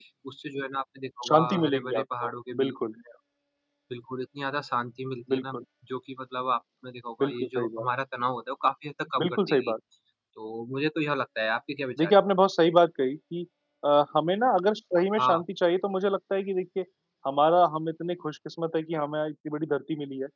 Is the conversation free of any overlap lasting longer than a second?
No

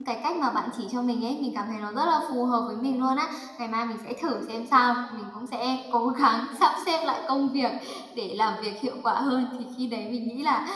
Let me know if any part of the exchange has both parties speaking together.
No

